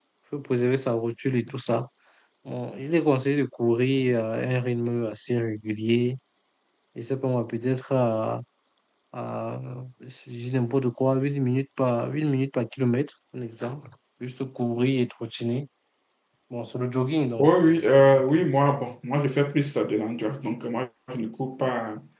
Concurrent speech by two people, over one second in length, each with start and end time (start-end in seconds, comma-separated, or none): 17.4-18.7